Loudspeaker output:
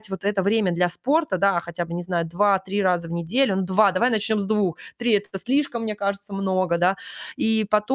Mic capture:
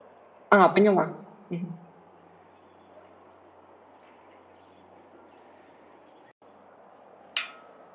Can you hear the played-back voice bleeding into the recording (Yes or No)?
No